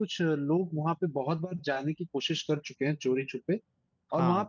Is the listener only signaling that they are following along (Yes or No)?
Yes